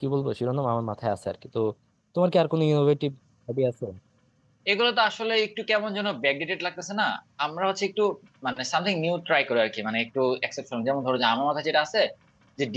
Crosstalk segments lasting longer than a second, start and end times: none

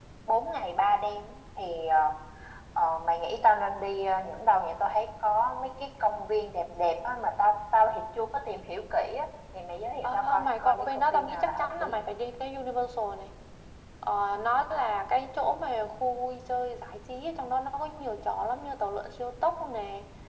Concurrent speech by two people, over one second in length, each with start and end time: 10.0-12.0

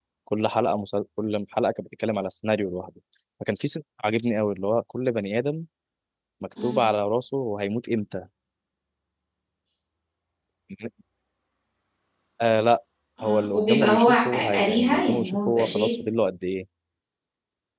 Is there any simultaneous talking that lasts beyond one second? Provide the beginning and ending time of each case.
13.2-15.9

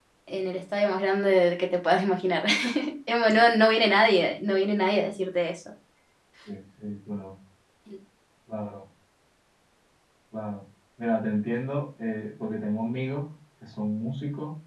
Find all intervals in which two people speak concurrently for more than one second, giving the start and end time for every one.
none

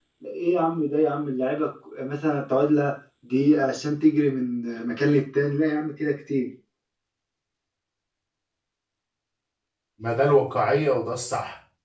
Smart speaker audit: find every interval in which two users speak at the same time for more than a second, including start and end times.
none

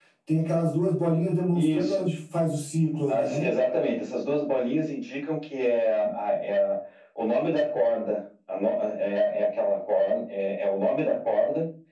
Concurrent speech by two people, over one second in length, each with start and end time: none

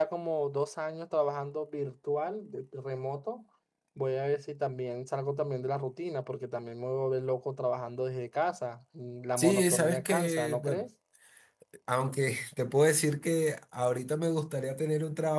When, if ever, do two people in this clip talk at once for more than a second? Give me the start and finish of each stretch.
9.4-10.8

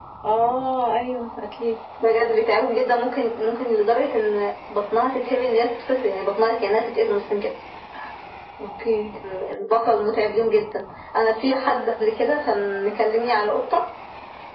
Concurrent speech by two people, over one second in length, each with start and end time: none

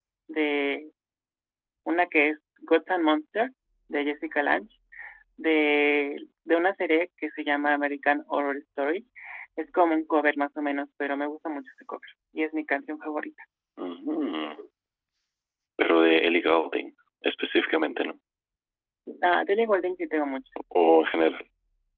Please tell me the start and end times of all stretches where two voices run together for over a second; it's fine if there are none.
none

